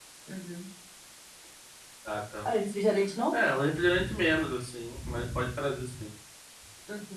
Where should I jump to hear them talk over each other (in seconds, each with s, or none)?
none